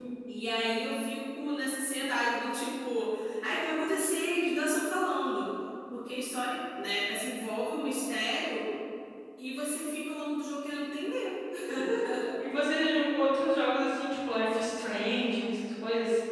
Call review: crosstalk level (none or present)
none